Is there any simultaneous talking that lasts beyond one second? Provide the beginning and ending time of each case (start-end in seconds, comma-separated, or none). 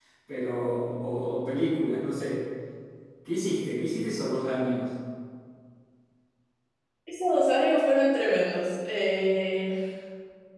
none